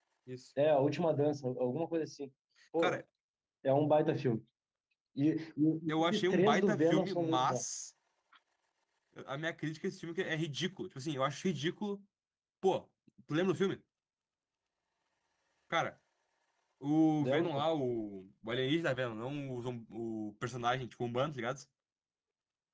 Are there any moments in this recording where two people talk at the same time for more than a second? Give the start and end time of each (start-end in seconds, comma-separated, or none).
6.1-7.6